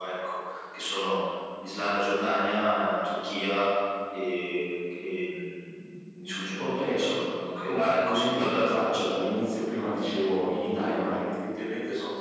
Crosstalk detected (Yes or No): Yes